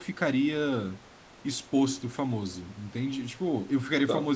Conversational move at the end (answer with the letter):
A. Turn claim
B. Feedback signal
B